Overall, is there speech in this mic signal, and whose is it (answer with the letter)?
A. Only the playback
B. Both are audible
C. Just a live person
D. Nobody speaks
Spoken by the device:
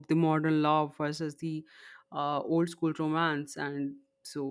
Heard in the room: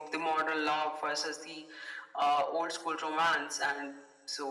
A